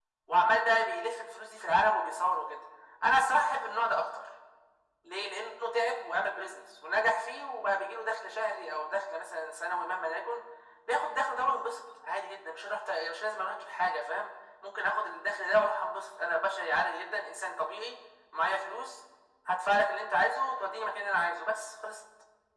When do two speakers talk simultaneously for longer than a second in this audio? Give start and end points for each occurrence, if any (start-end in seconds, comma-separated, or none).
none